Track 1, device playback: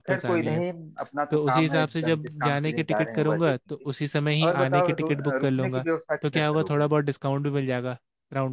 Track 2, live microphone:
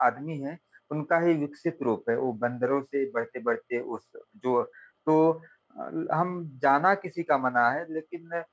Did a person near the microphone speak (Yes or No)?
Yes